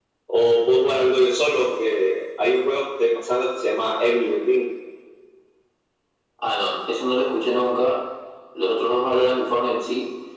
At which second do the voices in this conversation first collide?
none

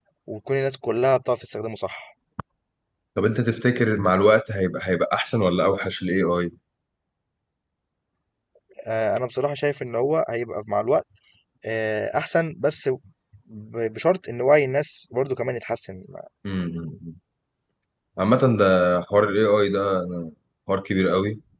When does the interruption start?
none

